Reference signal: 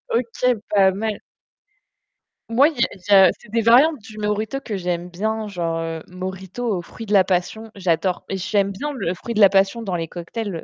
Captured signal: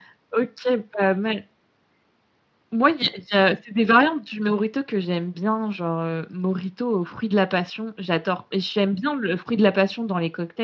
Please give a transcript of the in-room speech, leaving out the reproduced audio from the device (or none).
none